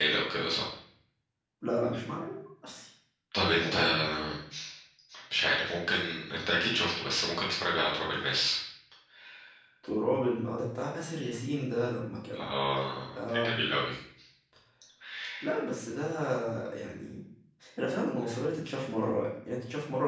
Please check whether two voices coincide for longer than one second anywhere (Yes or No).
No